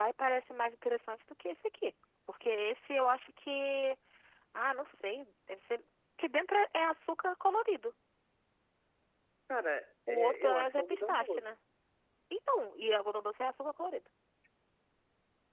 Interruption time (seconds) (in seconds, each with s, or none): 10.1 s